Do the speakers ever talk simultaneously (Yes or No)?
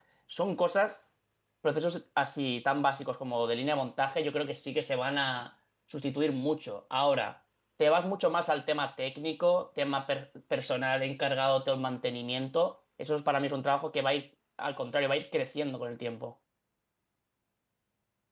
No